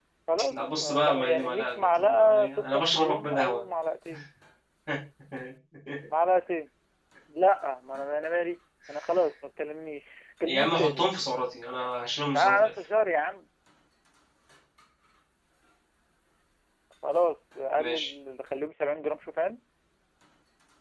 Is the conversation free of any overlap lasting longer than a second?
No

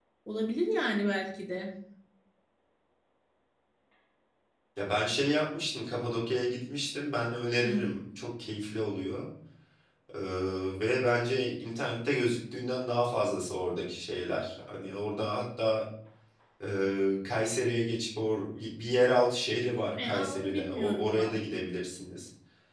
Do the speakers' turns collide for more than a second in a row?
Yes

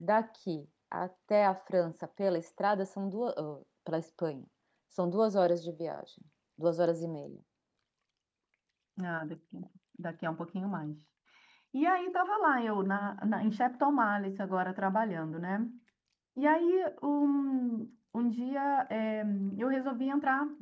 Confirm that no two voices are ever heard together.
Yes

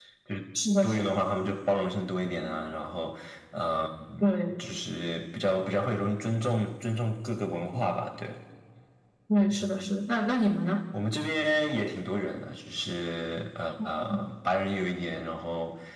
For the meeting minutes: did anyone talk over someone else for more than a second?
No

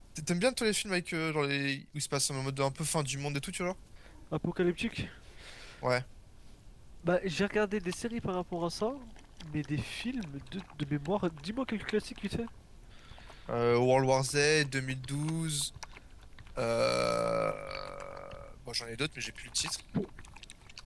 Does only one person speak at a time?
Yes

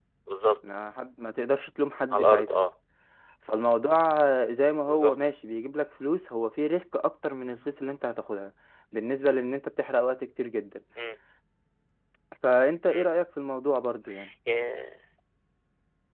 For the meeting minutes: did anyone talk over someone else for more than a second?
No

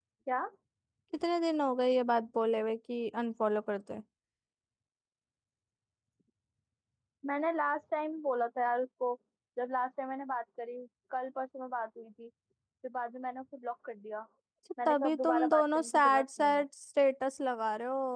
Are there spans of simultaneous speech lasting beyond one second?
Yes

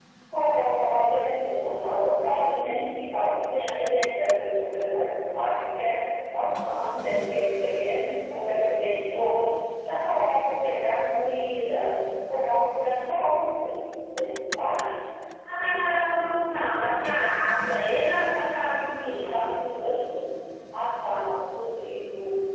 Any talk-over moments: No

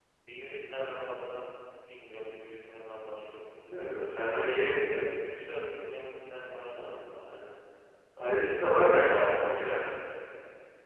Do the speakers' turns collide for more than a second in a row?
Yes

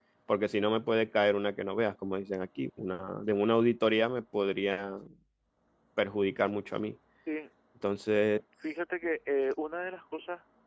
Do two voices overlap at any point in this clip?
No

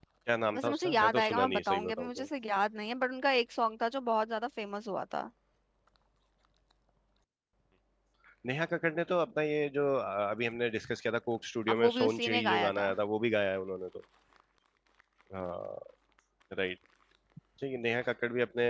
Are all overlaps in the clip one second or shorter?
No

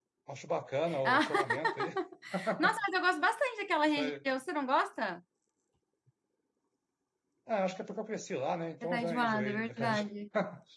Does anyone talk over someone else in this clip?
Yes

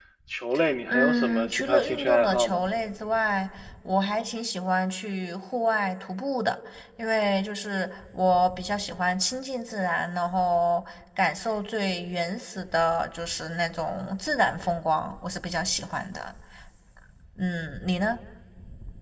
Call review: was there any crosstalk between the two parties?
Yes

